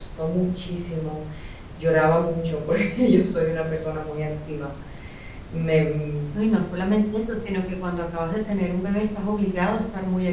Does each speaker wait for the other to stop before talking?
Yes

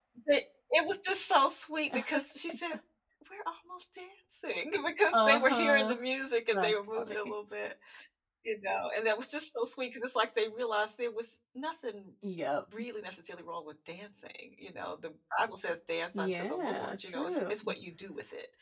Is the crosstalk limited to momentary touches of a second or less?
No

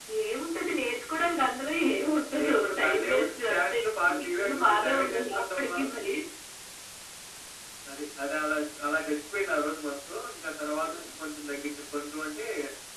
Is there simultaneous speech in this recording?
Yes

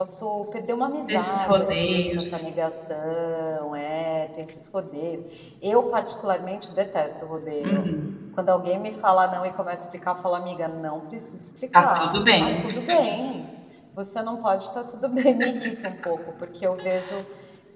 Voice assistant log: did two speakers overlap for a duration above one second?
Yes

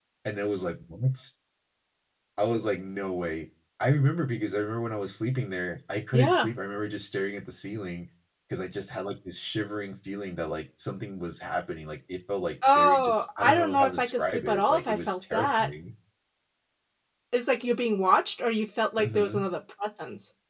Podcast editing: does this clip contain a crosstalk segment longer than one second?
Yes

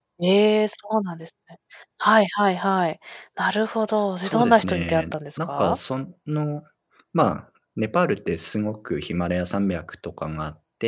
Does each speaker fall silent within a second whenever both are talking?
No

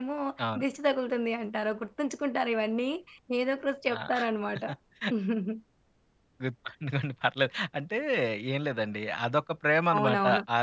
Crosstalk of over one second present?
No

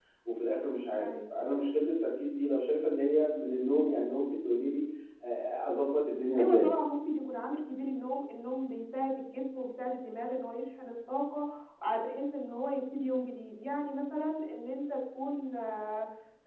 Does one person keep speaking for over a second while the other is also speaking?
No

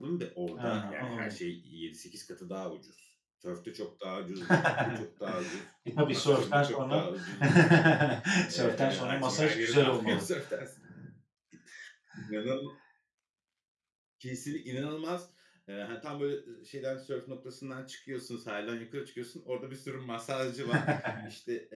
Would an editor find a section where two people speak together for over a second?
Yes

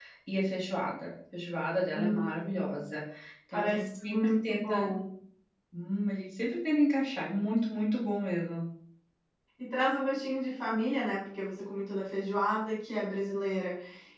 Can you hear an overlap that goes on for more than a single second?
Yes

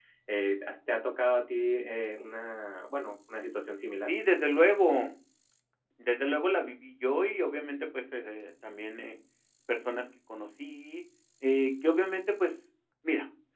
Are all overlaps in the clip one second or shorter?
Yes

